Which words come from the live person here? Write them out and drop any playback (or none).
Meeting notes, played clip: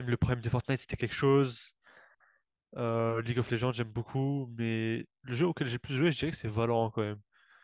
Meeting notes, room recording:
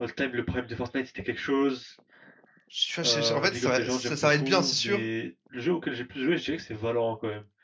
Tu vois, je- je- en fait, ça va, ça ça va être bien, c'est sûr,